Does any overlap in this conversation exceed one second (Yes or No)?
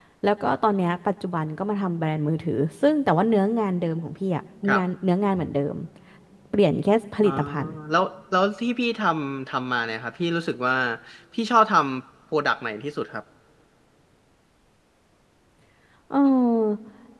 No